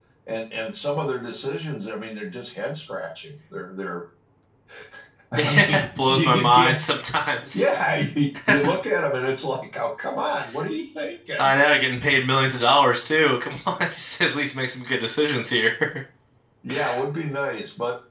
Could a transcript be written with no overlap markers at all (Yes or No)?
No